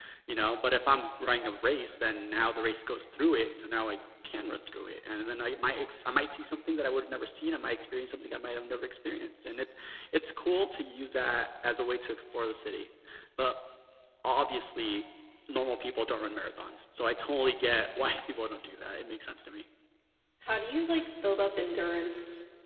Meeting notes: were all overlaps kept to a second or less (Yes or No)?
Yes